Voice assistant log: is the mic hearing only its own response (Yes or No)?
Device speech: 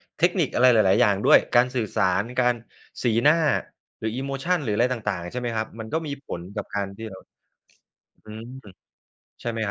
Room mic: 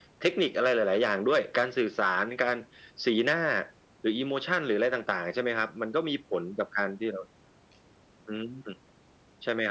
Yes